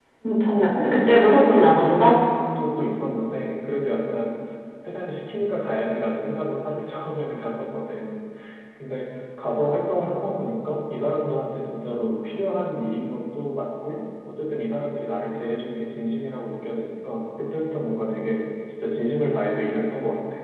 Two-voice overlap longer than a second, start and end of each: 0.5-2.2

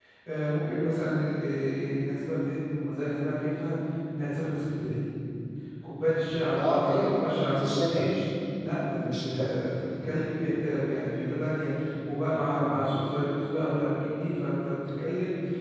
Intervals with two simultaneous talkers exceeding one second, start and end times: 6.6-8.1

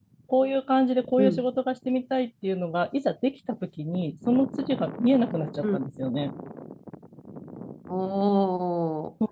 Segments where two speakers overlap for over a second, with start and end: none

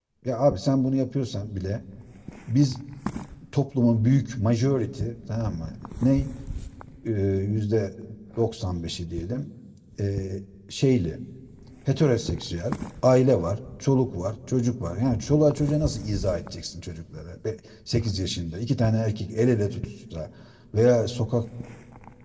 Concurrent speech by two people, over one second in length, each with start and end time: none

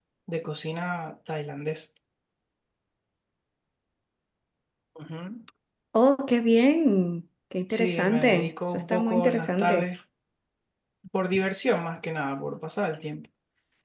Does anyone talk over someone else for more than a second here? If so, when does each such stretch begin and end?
7.7-9.9

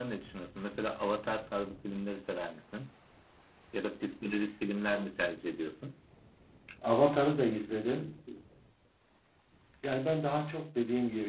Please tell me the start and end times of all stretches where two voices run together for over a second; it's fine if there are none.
none

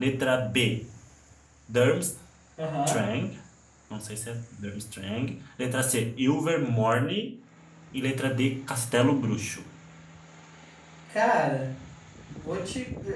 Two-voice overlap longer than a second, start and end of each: none

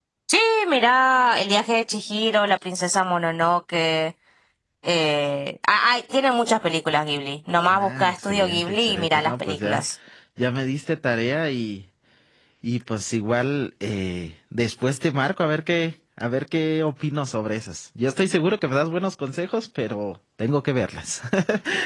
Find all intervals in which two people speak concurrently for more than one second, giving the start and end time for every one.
7.7-9.8

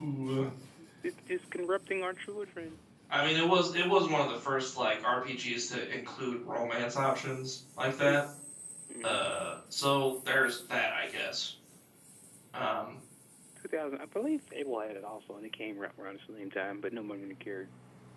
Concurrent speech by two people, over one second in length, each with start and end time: none

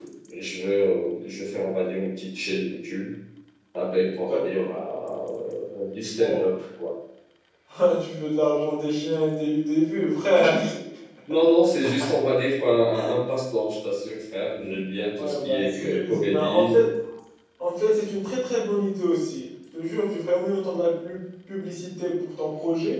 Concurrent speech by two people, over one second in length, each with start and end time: 15.1-16.8

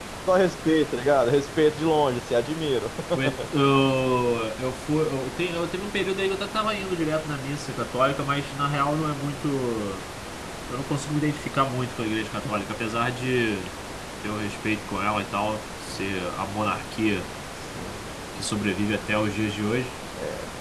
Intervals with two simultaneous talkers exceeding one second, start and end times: none

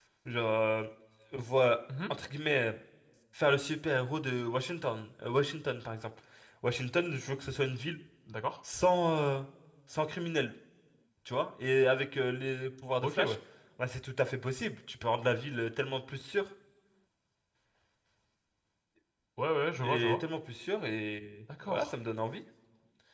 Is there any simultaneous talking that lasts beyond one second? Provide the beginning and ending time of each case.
none

